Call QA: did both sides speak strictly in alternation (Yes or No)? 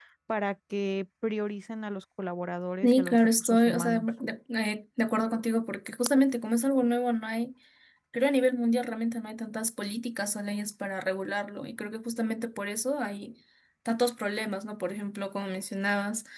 No